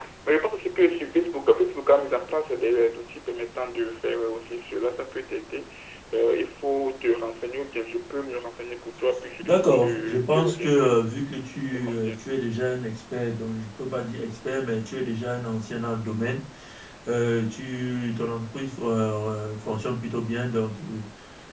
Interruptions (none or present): present